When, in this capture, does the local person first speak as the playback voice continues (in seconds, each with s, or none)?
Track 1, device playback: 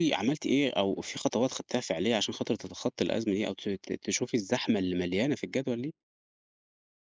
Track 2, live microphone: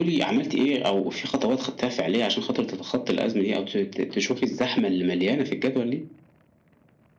none